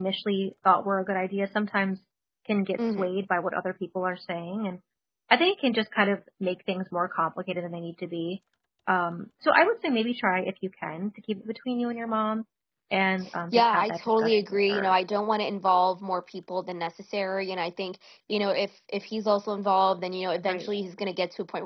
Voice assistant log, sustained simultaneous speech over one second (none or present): present